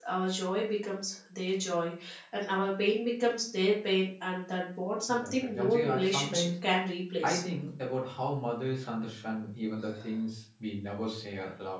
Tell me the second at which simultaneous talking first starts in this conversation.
5.1 s

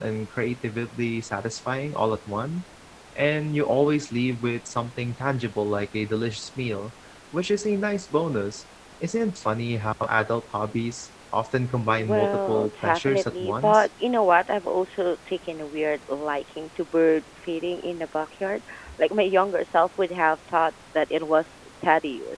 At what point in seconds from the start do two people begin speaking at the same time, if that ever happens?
12.0 s

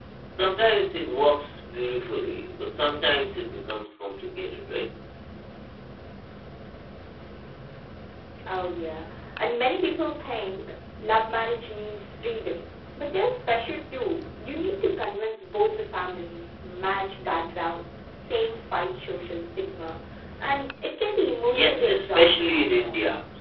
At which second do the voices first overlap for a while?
21.5 s

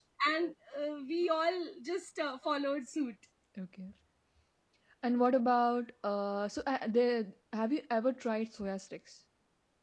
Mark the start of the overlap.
none

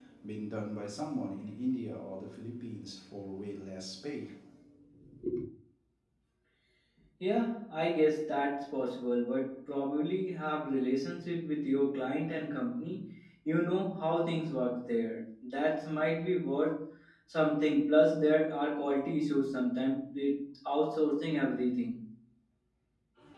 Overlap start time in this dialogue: none

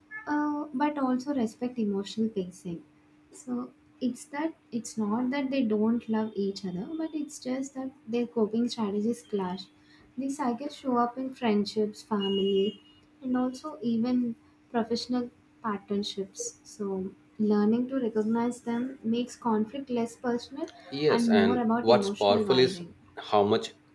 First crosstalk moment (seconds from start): 21.1 s

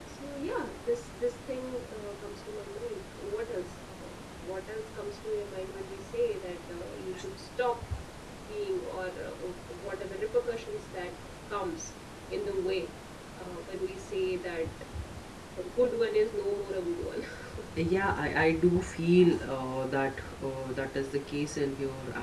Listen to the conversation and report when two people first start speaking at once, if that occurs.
none

